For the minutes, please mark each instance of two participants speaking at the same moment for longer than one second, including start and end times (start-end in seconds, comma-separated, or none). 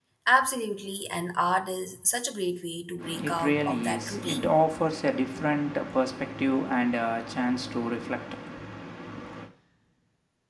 3.2-4.6